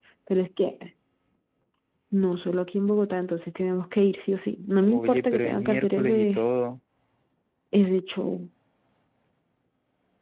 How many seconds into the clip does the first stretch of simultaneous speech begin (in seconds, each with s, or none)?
4.8 s